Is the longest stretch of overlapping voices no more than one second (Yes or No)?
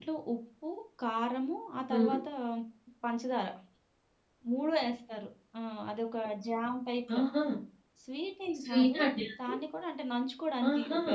Yes